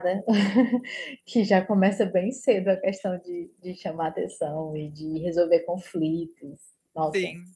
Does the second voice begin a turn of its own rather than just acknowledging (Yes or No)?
Yes